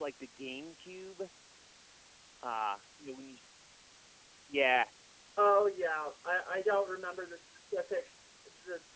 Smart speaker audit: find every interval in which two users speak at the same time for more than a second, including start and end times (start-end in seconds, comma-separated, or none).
none